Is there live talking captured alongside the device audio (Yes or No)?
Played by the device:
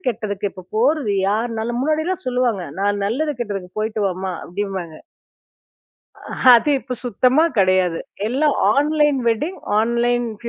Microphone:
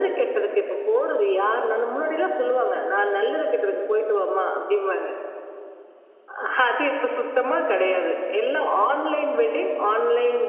No